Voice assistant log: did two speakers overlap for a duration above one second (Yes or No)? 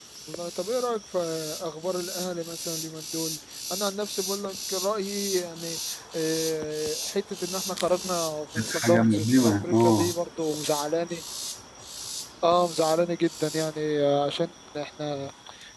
Yes